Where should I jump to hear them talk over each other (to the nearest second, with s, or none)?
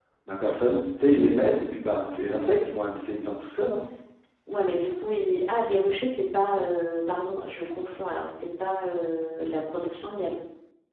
none